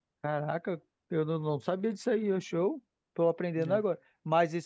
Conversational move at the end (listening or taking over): listening